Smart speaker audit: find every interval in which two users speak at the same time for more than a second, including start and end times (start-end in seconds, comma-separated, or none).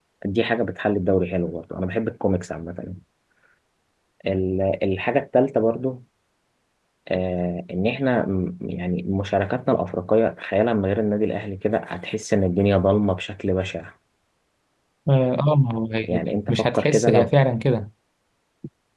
16.0-17.3